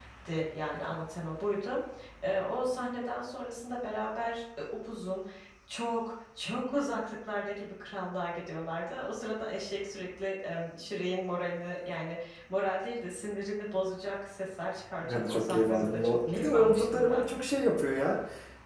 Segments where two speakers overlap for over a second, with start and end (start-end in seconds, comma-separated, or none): 15.0-17.2